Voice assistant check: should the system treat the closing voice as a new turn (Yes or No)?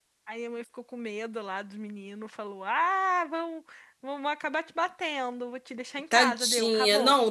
Yes